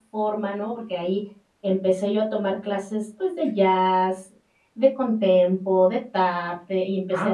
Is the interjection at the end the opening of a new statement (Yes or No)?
Yes